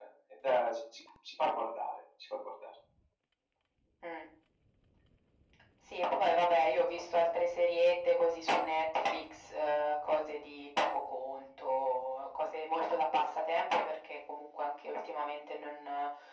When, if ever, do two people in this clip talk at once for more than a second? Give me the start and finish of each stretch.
none

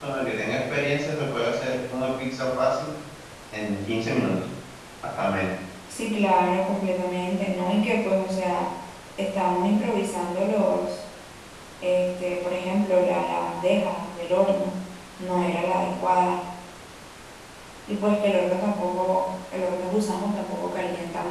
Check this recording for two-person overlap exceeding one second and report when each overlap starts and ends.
none

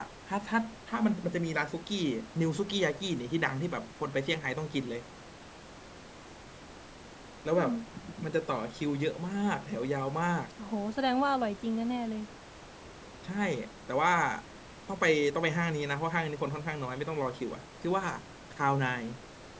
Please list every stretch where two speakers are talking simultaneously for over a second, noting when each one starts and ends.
none

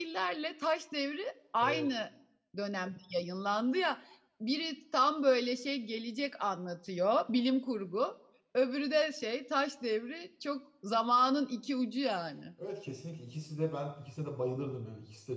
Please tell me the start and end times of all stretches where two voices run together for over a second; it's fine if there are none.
none

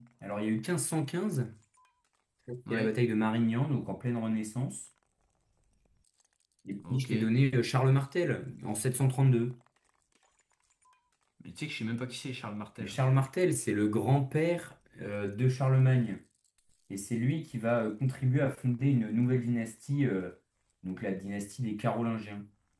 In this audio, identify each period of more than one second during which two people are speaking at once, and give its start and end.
none

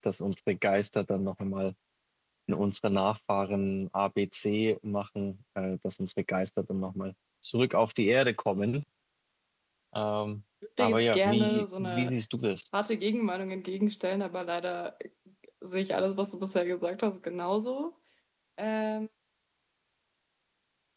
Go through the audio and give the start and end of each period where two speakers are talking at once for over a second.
10.8-12.1

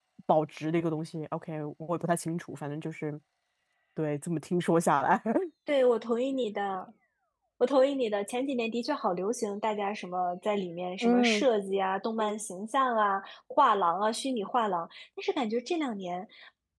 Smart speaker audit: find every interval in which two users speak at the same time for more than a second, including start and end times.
none

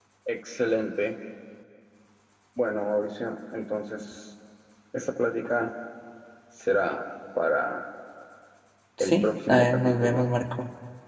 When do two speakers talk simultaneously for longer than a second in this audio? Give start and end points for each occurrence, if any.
9.0-10.3

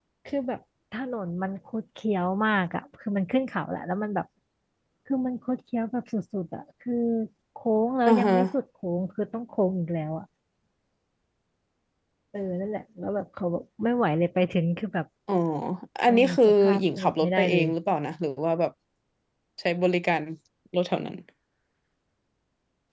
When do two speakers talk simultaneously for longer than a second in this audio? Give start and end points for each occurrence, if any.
16.1-17.7

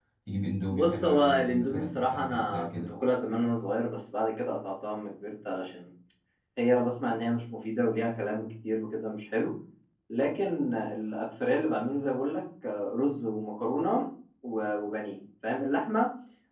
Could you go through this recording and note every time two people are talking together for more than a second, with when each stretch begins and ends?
0.7-2.9

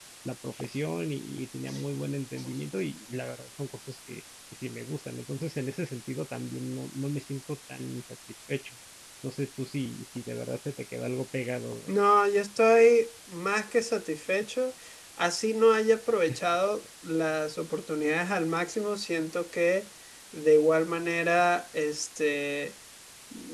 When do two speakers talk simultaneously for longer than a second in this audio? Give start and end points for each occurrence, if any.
none

